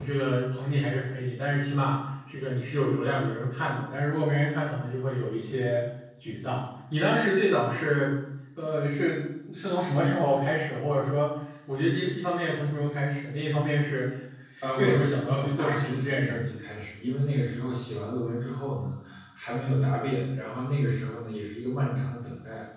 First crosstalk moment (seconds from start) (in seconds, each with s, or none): 14.8 s